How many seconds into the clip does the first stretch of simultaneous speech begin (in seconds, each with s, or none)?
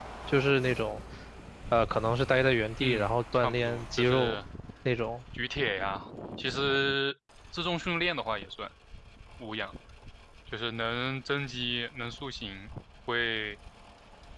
2.8 s